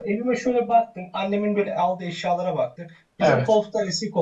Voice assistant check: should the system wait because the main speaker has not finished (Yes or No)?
Yes